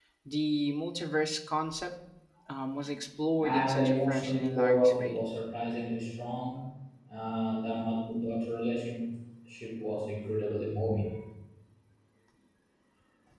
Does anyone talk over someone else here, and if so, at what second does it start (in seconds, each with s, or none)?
3.4 s